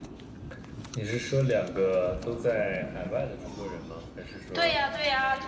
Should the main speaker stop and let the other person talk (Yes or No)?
Yes